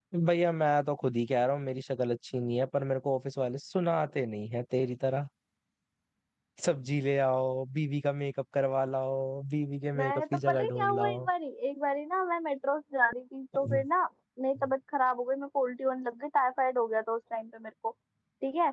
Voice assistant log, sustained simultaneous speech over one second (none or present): present